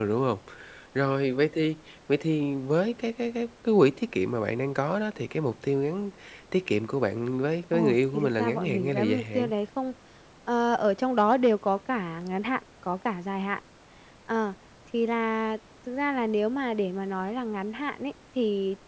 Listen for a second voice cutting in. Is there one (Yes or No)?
Yes